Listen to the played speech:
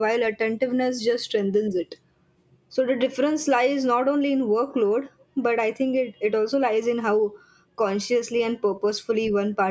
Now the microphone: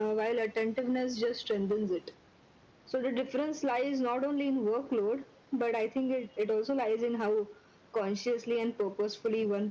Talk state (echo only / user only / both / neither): echo only